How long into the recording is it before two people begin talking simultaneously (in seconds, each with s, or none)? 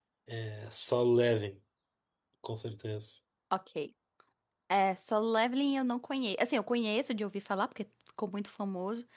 none